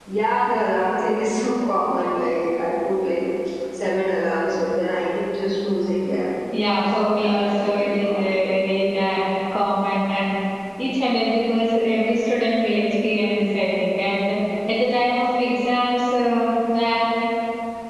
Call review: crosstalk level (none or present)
present